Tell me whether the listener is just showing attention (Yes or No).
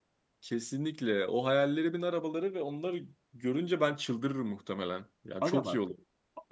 No